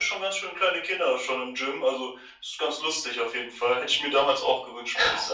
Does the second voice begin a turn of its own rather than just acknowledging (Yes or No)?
Yes